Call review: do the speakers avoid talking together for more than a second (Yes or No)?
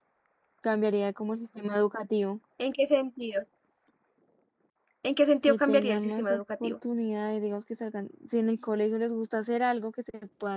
No